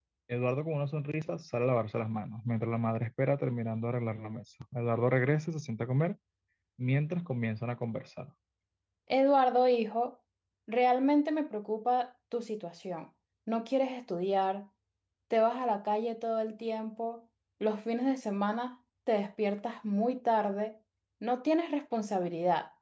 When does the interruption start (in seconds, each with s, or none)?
none